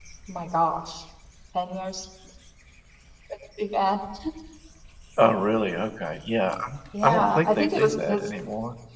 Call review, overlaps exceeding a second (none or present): present